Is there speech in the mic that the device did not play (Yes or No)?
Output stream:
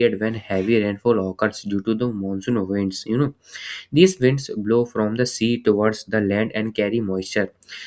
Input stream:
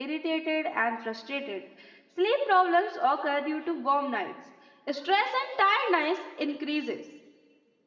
Yes